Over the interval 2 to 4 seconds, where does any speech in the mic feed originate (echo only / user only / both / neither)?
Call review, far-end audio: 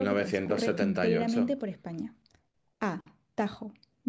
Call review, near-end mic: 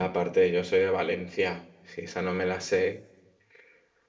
user only